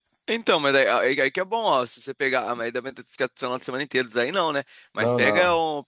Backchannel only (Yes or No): Yes